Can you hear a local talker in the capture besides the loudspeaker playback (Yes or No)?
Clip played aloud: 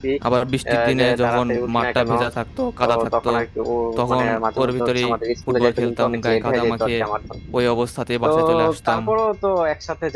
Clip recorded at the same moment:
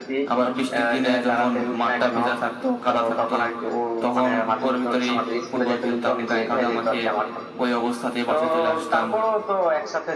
No